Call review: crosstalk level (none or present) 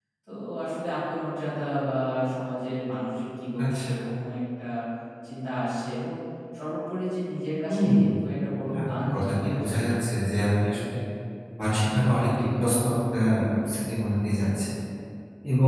present